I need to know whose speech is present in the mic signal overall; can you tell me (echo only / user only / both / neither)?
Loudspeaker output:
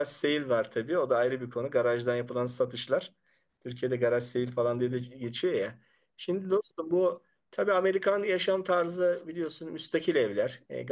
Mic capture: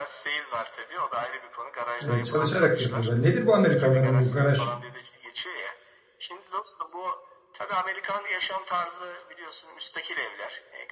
both